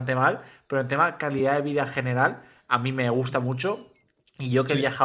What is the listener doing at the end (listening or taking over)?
listening